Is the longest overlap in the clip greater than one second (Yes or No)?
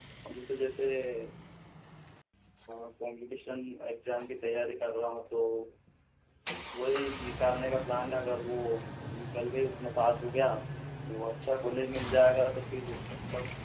No